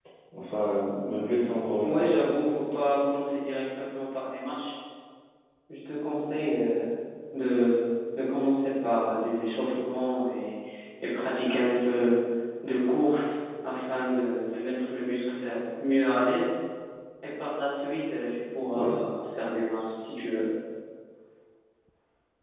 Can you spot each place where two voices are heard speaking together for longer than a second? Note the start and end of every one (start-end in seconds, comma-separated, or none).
none